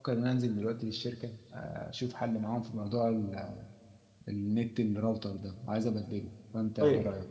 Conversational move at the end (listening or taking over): taking over